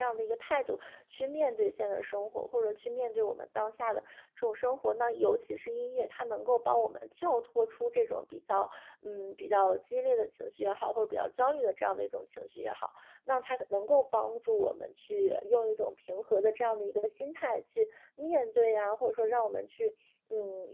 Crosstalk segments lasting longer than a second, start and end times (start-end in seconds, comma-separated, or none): none